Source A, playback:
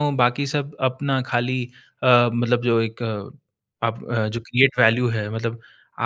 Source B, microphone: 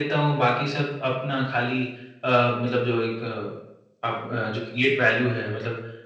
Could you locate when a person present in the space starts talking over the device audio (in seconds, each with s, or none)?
none